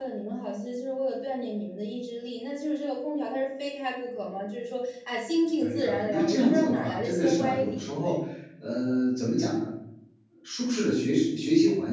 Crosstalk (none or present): present